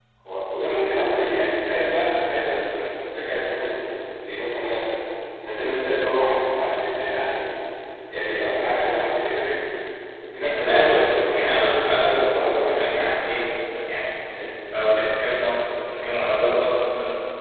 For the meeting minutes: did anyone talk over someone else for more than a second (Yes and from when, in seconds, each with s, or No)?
Yes, from 10.4 s